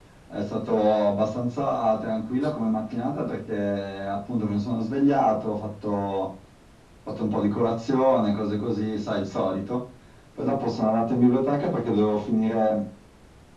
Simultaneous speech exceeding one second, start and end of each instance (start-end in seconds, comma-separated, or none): none